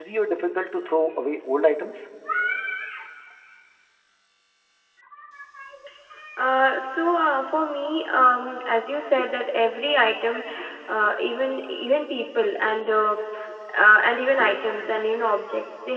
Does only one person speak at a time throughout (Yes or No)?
Yes